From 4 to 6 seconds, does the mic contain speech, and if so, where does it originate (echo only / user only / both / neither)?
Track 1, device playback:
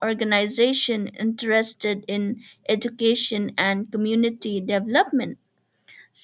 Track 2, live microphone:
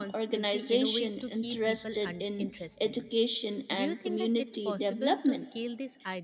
both